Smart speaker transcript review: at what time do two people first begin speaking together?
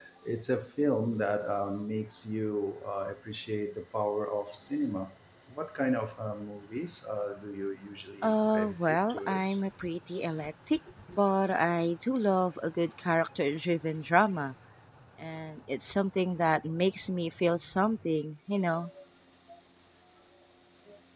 8.2 s

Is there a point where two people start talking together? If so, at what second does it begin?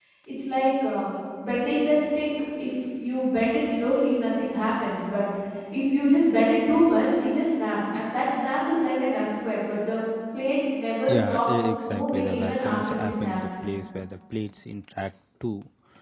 11.1 s

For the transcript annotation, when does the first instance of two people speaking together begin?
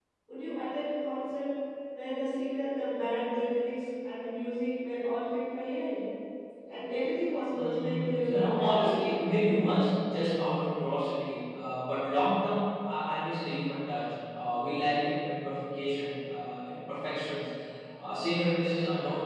7.6 s

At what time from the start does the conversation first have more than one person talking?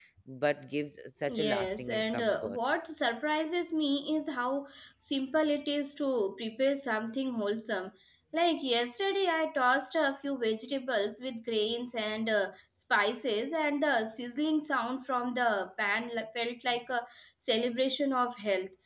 1.3 s

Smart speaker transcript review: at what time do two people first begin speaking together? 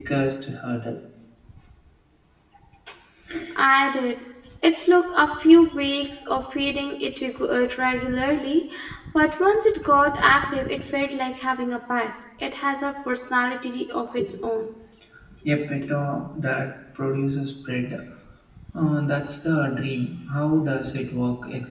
none

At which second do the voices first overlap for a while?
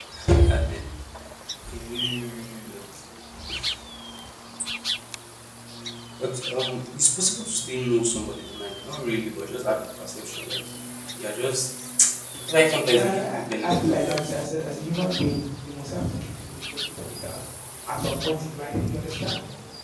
13.0 s

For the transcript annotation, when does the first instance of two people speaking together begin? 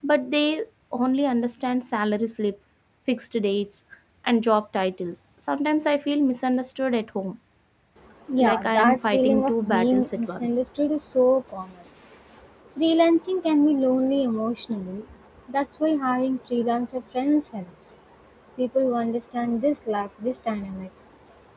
8.4 s

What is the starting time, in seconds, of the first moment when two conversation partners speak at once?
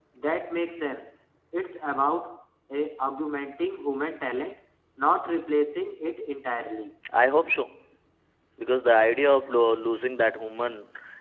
none

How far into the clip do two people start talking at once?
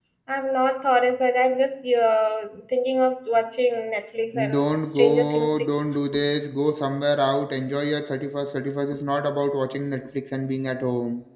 4.3 s

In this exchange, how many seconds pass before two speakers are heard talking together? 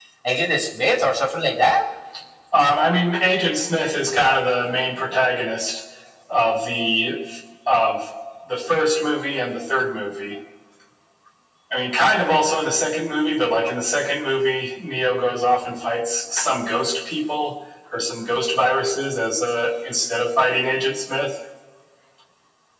none

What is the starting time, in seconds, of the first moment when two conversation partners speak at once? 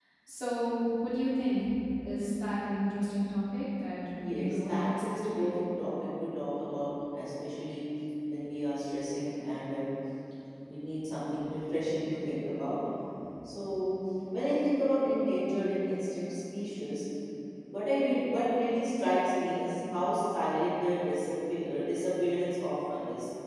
4.2 s

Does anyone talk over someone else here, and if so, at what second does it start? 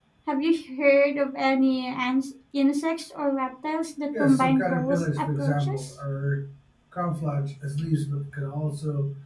4.1 s

